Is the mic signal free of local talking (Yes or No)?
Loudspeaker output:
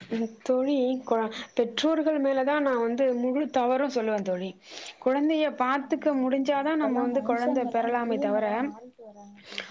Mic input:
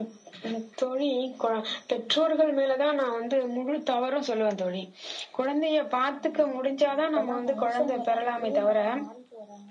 Yes